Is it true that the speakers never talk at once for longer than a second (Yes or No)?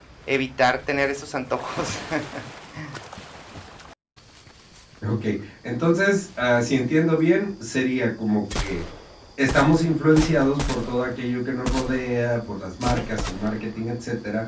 Yes